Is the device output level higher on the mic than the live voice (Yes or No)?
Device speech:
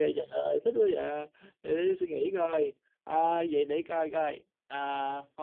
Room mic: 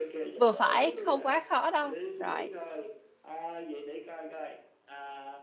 No